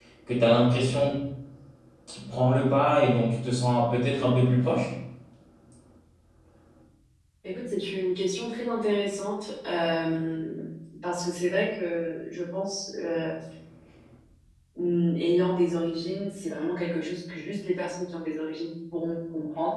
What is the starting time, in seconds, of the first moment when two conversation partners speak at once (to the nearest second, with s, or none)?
none